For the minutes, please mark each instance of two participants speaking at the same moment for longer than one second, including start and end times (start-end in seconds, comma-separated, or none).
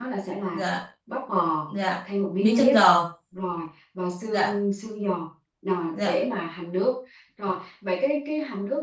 none